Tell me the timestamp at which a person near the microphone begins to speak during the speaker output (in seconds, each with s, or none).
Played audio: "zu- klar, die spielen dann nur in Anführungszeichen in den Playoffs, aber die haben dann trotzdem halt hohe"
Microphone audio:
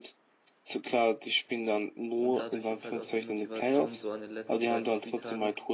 2.1 s